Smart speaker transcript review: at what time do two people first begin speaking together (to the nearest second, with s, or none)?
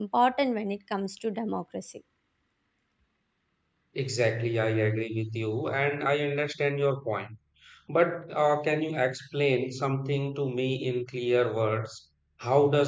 none